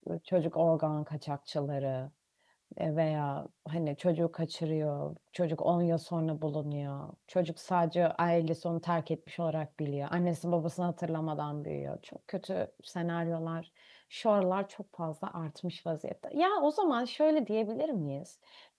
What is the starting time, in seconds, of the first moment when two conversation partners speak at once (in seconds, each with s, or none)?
none